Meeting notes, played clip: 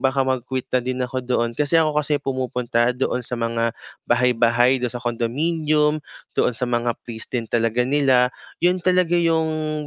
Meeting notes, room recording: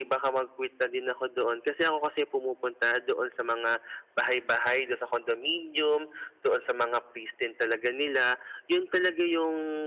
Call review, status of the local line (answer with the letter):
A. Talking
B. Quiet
B